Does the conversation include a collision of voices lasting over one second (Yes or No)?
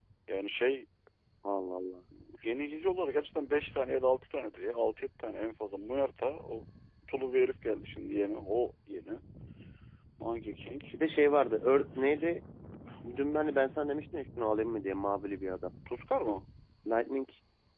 No